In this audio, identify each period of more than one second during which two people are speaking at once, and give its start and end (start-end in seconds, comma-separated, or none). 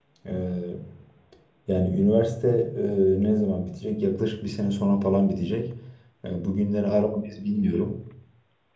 none